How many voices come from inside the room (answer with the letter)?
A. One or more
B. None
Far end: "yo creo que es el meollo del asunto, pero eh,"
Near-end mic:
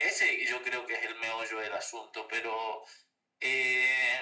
B